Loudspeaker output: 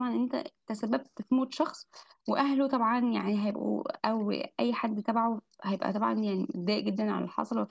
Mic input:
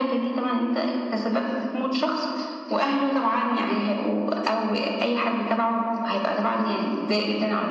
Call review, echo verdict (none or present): present